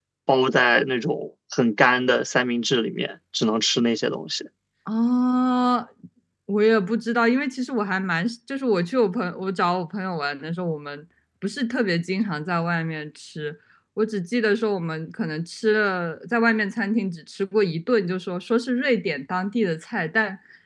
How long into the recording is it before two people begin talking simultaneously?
none

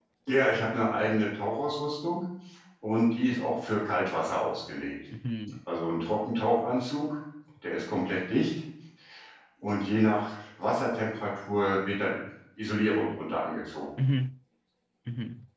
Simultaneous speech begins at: none

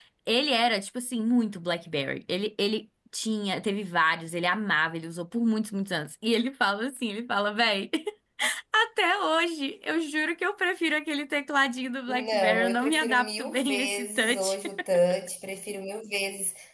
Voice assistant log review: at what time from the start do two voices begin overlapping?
12.1 s

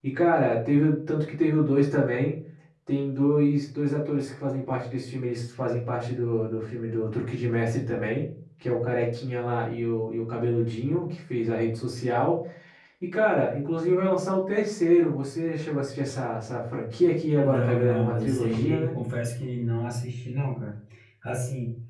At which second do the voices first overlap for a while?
17.4 s

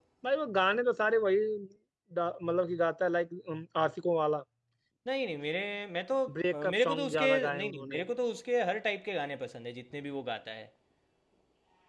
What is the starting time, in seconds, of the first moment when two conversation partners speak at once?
6.5 s

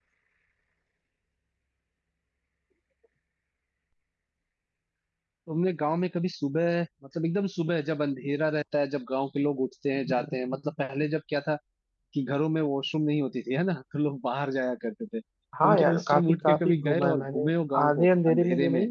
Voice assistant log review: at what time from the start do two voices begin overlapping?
15.5 s

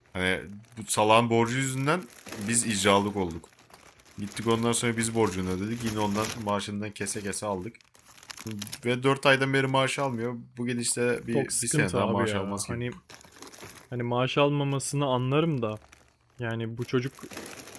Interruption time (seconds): 11.3 s

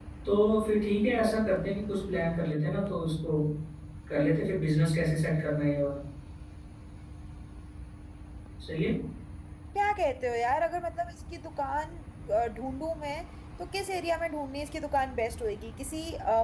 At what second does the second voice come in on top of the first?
none

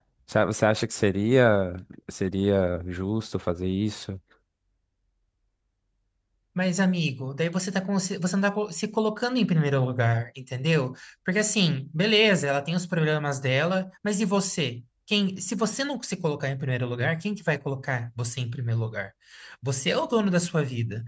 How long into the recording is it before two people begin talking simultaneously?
none

